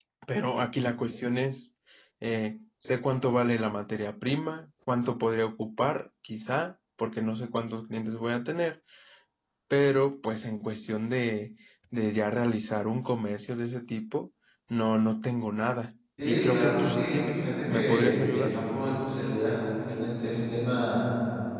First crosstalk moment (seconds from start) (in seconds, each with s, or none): 16.2 s